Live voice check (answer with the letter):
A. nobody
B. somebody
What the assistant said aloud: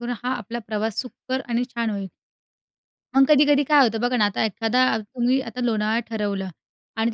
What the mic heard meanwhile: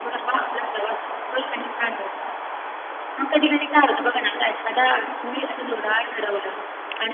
A